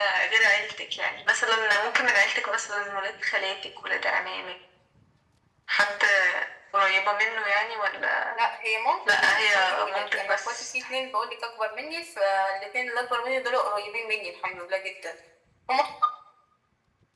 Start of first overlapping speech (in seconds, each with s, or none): 9.0 s